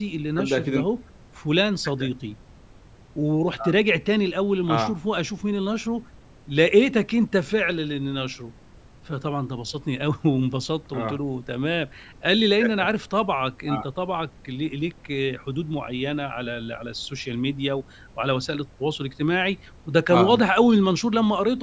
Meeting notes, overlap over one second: none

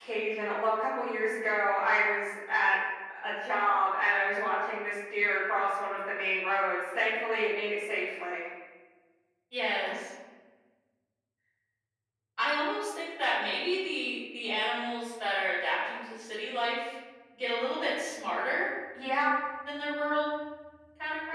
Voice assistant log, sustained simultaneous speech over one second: none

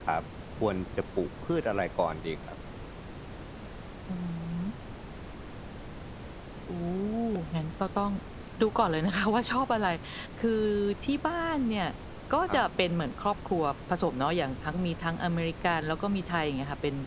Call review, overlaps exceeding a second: none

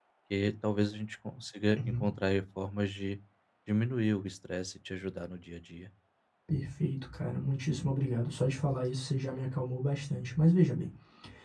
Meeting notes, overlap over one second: none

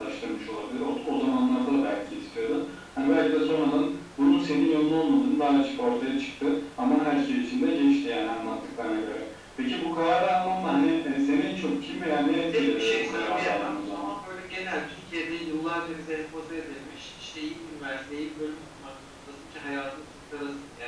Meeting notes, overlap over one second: present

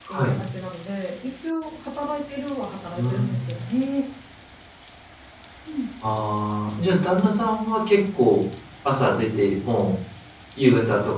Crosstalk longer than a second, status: none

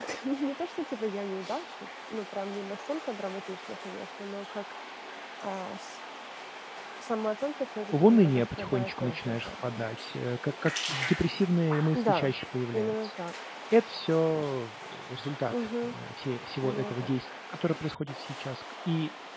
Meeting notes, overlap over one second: present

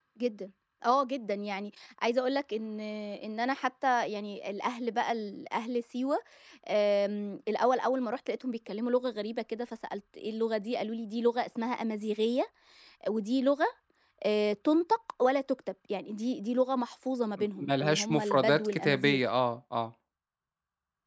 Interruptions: present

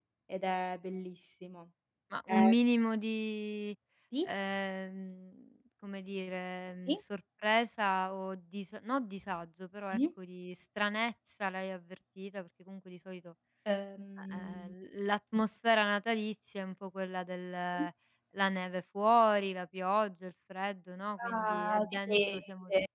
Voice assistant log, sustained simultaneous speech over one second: present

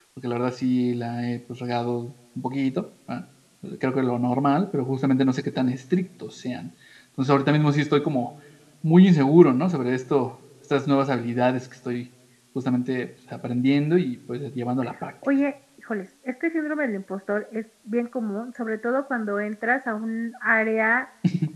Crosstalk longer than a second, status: none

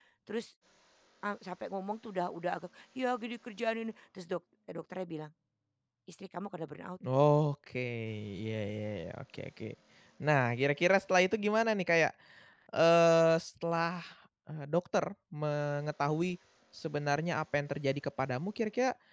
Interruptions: none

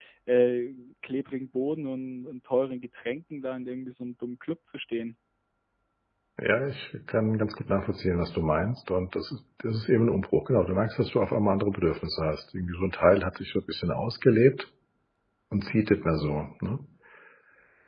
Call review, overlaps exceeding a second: none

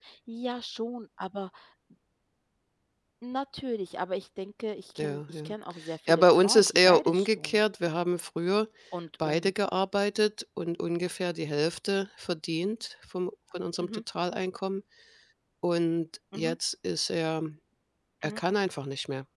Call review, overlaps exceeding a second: present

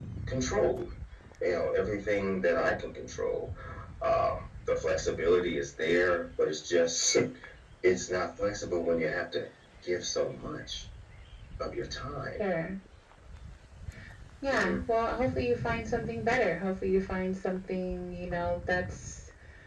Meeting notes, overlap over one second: none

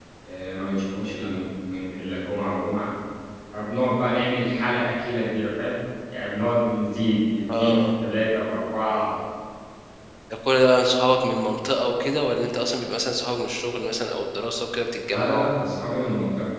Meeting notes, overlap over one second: none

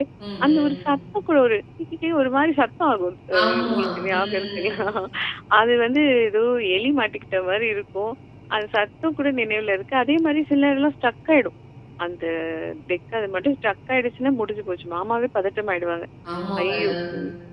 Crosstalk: present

